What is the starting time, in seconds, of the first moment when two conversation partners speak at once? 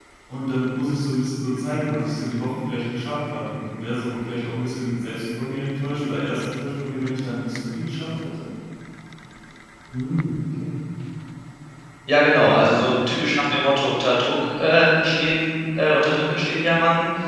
none

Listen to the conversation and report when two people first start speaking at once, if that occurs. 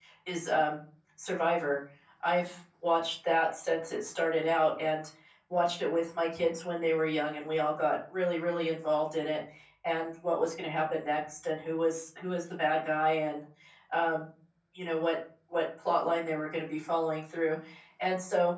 none

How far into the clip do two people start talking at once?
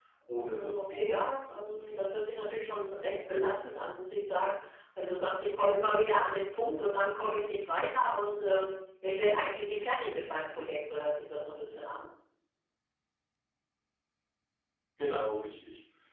0.5 s

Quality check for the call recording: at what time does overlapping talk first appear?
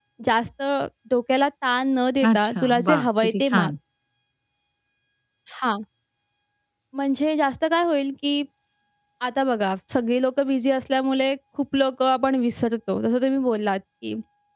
2.2 s

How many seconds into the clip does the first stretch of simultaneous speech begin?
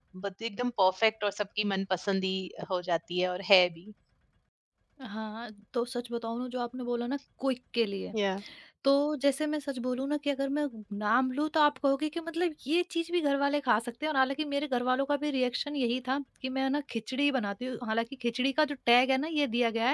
none

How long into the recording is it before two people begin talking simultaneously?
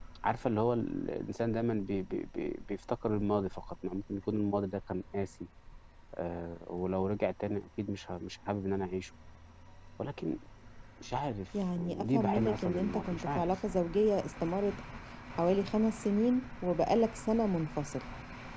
11.8 s

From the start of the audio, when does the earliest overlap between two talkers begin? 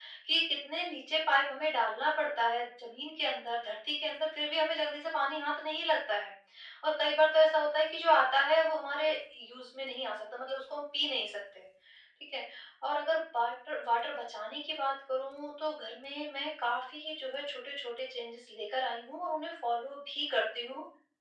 none

